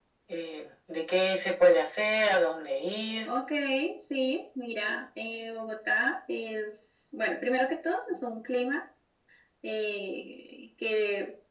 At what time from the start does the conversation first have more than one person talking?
none

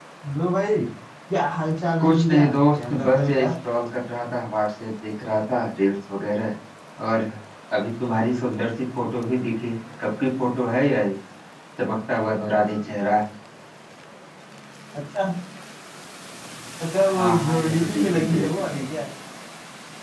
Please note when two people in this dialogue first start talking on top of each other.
2.0 s

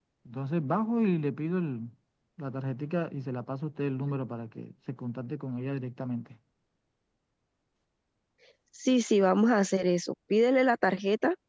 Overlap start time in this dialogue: none

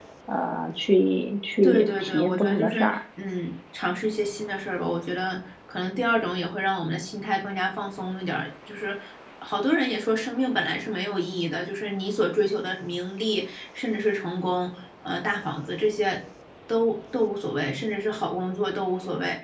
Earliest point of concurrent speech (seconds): 1.6 s

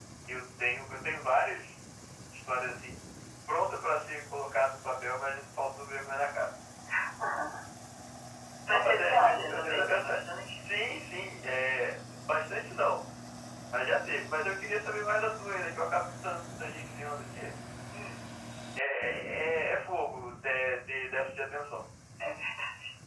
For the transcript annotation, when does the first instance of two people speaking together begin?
8.7 s

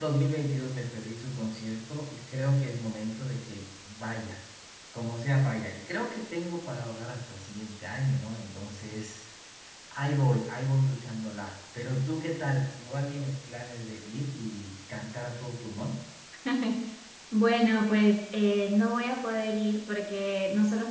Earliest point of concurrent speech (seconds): none

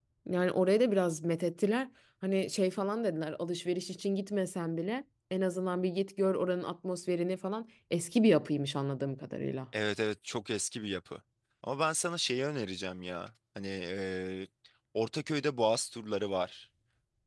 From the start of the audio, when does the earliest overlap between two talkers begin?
none

